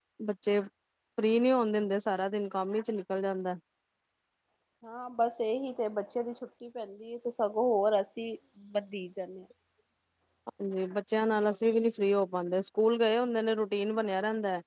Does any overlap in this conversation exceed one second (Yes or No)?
No